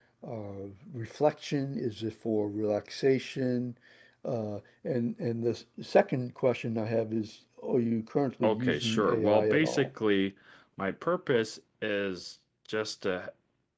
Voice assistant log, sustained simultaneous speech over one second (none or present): present